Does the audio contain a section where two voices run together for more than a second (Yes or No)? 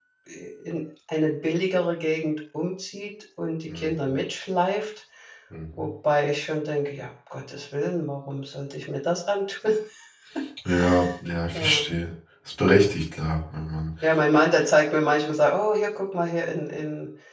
No